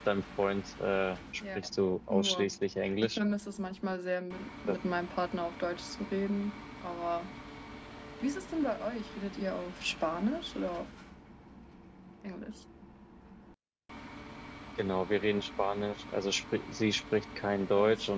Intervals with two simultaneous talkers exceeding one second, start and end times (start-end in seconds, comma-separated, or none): none